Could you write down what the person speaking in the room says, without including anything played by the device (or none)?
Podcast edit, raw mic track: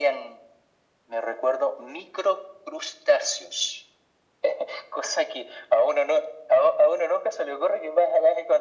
none